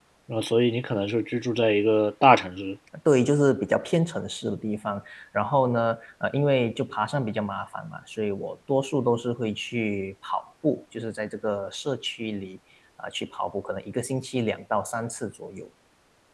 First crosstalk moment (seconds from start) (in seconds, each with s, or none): none